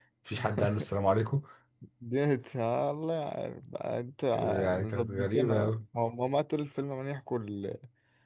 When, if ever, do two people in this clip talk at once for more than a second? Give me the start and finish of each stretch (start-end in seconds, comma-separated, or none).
4.3-5.7